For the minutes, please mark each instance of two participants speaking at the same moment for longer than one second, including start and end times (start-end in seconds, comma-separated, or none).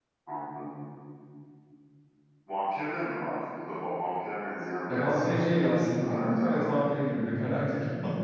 4.9-6.7